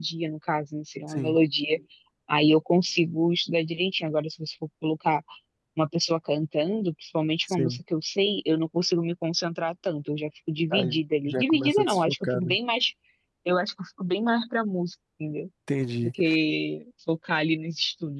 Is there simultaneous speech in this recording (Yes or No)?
Yes